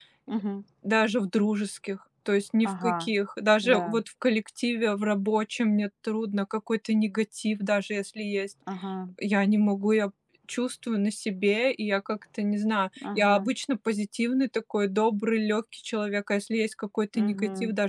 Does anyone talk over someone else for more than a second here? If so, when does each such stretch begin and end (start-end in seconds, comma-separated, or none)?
none